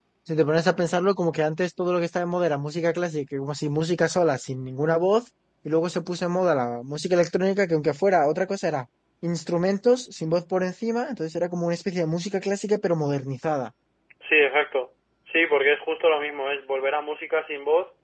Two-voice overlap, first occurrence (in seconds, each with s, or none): none